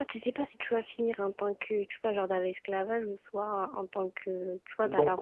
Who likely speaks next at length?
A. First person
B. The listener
B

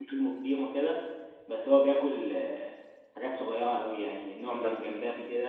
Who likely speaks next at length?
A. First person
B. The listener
A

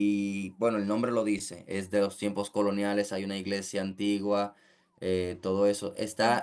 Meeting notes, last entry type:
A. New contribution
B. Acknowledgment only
B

